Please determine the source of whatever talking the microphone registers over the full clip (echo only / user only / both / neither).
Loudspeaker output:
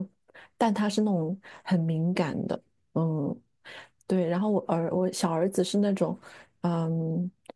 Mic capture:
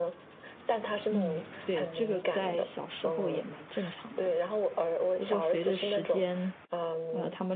both